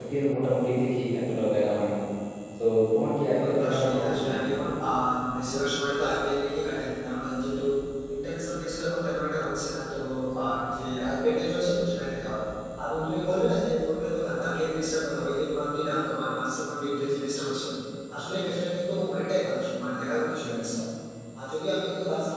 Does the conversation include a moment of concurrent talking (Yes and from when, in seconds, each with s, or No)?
Yes, from 3.2 s